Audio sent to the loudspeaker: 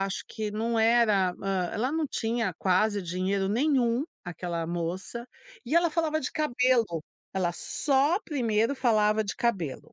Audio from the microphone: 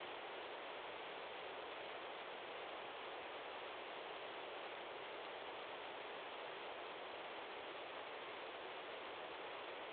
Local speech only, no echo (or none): none